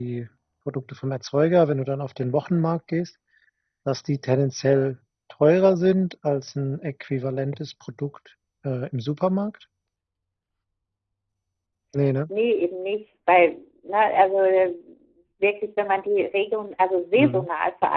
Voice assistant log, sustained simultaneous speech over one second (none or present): none